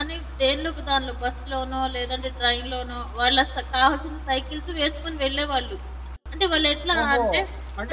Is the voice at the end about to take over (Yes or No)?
Yes